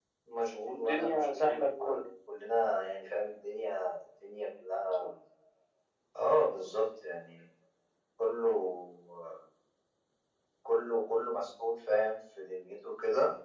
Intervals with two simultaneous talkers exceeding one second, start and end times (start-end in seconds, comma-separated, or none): 0.7-2.0